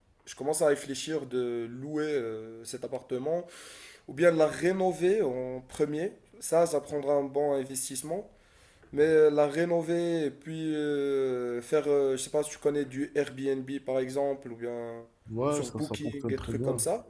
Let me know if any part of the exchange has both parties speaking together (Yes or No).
Yes